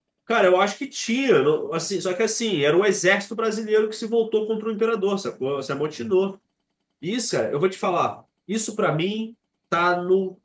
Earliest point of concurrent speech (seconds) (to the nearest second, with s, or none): none